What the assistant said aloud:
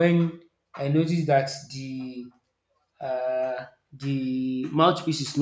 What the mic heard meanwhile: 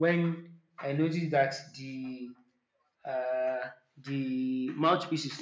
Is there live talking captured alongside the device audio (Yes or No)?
No